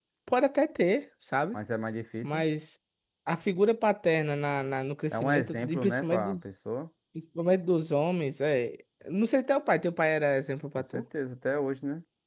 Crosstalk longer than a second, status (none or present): present